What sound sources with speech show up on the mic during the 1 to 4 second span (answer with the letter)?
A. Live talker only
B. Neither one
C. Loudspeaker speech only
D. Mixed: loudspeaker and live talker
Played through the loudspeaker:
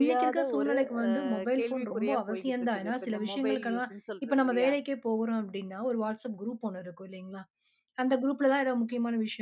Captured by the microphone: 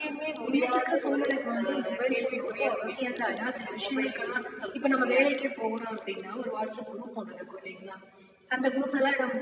C